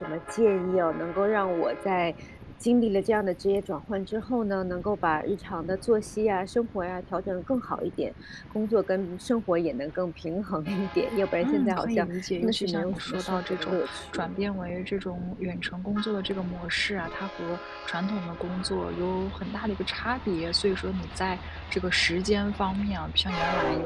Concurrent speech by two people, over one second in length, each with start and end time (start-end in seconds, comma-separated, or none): 11.4-14.3